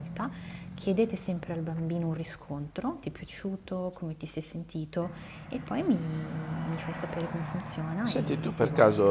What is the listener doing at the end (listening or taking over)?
taking over